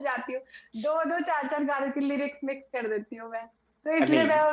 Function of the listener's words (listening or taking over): listening